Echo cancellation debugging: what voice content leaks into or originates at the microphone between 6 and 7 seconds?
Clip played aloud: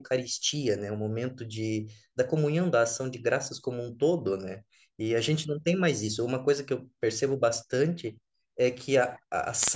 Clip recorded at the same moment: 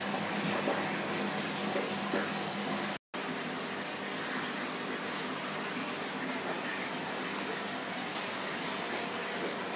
neither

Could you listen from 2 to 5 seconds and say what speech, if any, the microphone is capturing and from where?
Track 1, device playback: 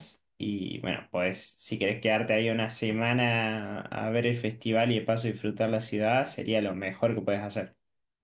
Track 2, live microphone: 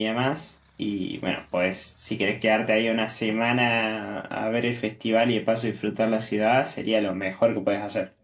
echo only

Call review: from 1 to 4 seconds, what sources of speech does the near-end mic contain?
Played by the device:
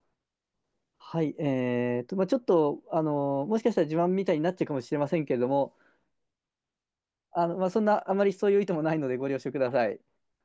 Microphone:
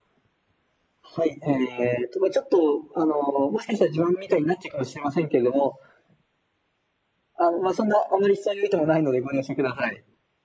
echo only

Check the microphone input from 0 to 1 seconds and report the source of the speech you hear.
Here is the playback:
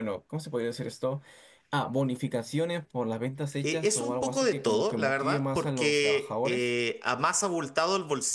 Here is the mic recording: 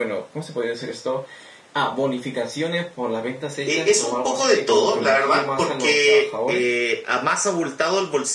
echo only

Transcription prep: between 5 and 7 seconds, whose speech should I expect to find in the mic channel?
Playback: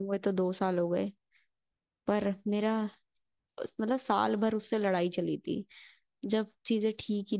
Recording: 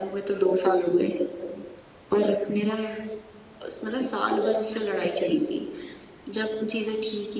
echo only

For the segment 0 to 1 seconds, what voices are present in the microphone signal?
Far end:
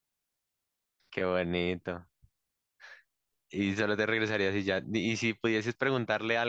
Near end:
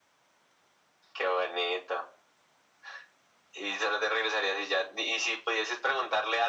neither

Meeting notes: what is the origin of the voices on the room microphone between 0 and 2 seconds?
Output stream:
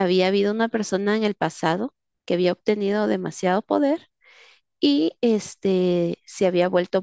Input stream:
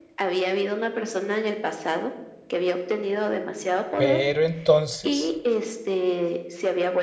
echo only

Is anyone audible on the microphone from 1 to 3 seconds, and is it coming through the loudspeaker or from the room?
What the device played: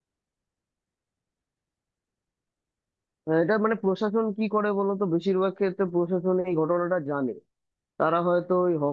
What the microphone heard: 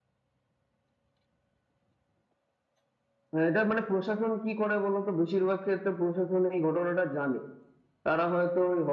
neither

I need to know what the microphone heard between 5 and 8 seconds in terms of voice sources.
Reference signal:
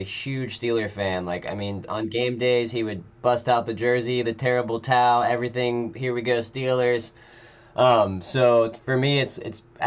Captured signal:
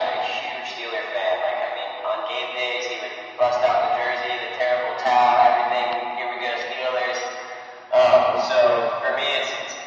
echo only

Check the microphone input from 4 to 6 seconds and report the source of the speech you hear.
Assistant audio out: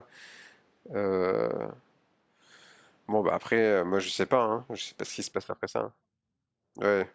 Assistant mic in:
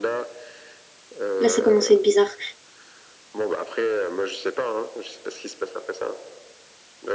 echo only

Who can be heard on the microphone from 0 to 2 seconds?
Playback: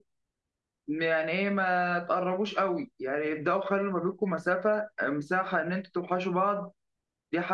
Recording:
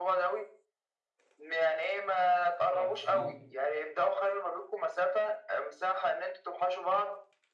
echo only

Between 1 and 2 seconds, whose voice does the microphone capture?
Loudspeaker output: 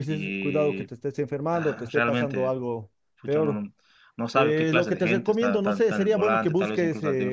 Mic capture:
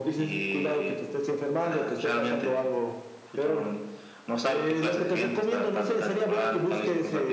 echo only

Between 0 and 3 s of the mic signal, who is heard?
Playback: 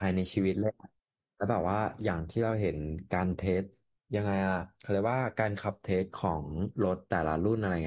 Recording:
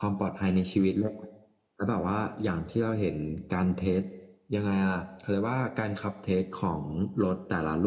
echo only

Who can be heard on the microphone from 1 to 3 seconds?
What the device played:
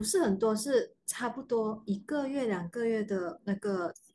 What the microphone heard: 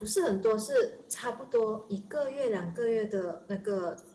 echo only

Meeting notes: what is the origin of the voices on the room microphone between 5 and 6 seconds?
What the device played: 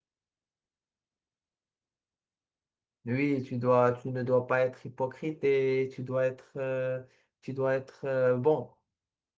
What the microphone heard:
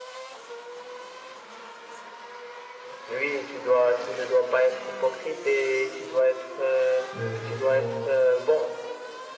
echo only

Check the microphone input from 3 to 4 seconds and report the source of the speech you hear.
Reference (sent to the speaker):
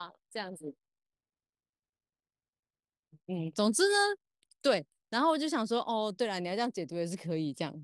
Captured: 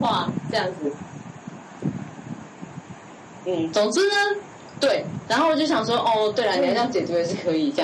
echo only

